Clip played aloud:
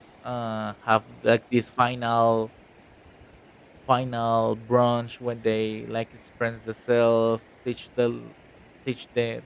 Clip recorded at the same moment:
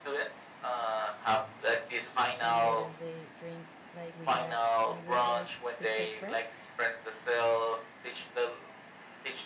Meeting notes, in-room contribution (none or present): present